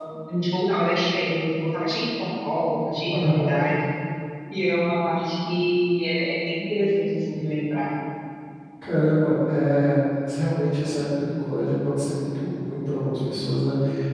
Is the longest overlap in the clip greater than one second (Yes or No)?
No